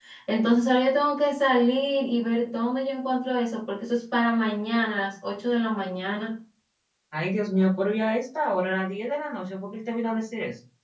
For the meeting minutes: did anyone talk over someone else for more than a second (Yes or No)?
No